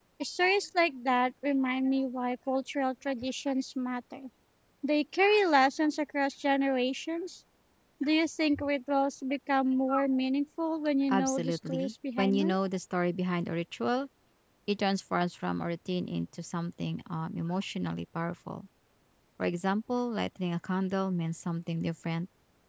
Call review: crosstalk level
present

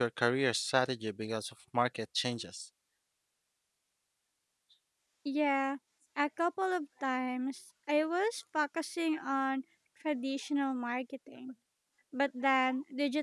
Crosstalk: none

